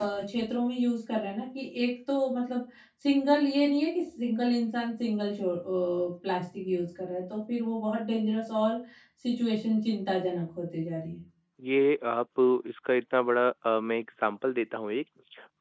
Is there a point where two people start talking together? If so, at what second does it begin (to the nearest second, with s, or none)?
none